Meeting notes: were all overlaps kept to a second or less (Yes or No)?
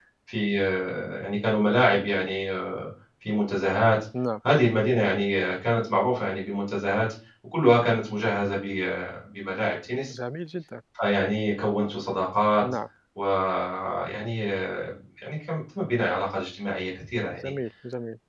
Yes